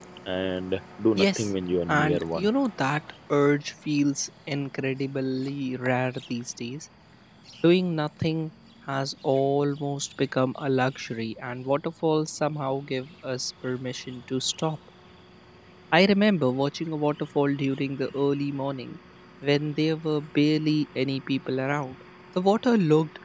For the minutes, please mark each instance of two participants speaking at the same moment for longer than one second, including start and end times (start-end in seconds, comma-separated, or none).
1.2-2.5